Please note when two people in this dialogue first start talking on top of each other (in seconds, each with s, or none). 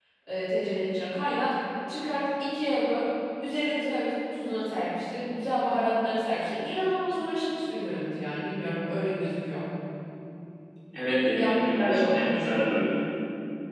11.3 s